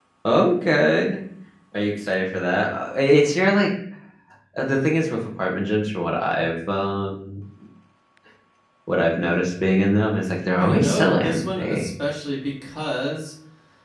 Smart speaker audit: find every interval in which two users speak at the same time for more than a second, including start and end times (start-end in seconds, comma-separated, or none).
10.6-11.9